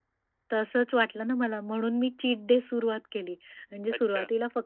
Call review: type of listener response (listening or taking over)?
listening